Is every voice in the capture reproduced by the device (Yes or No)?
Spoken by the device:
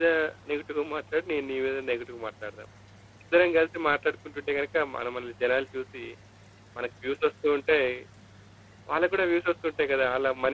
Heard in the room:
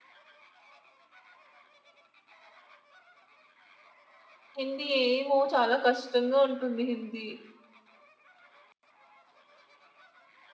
No